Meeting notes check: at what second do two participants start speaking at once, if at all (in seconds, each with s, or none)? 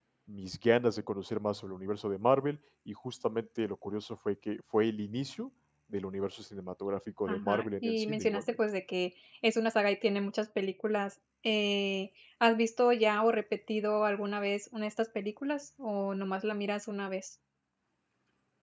7.3 s